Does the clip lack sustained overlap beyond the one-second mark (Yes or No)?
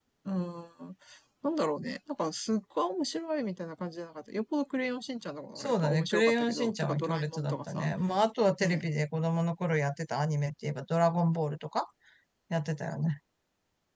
No